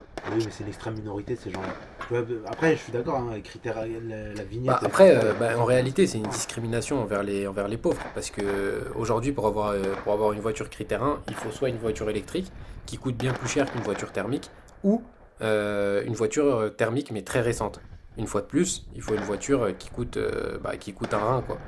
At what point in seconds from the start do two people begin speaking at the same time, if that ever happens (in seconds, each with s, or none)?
4.7 s